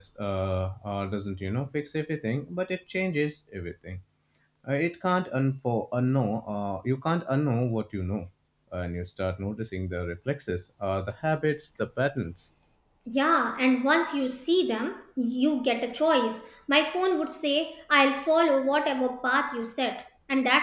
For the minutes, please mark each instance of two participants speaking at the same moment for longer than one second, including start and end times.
none

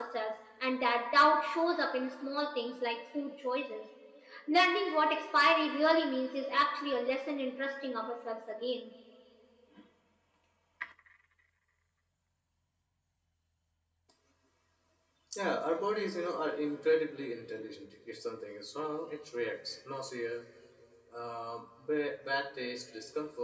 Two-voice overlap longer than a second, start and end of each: none

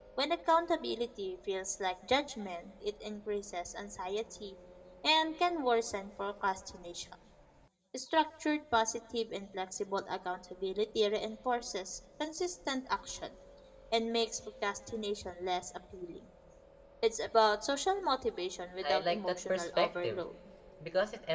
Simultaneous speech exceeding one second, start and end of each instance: 18.8-20.2

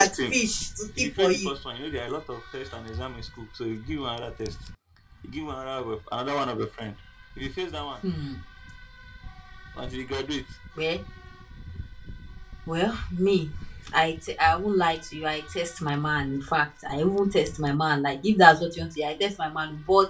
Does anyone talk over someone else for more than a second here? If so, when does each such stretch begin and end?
none

